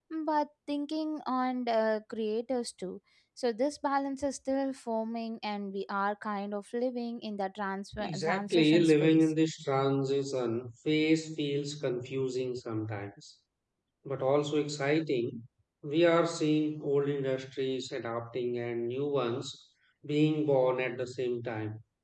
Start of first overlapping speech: 8.0 s

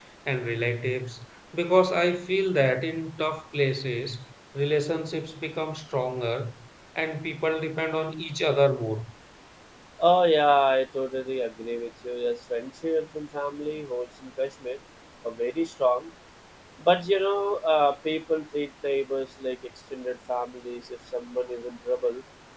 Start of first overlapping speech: none

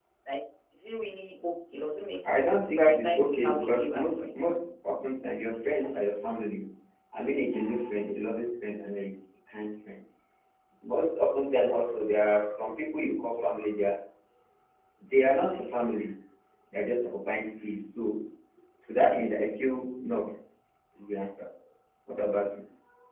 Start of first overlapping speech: 2.2 s

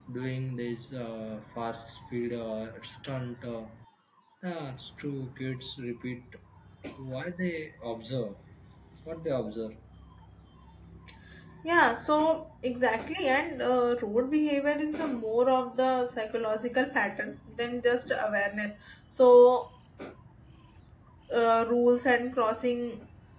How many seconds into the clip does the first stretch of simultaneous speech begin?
none

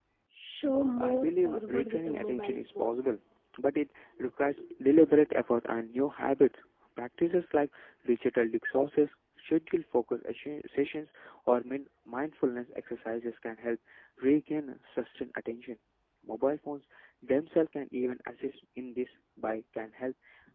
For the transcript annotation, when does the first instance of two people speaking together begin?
1.0 s

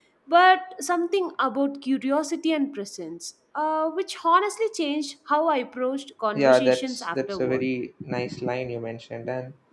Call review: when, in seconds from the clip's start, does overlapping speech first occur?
6.3 s

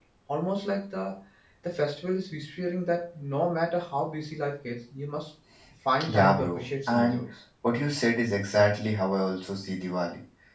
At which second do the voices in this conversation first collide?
6.0 s

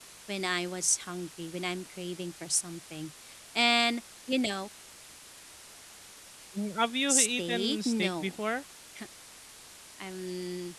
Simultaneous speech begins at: 7.1 s

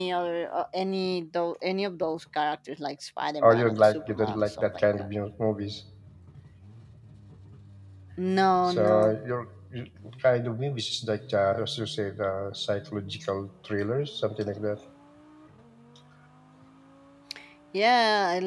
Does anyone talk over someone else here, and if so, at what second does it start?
3.4 s

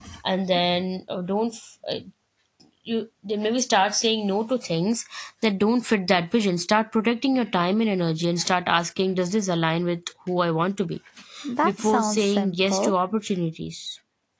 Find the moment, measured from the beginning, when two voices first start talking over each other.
11.6 s

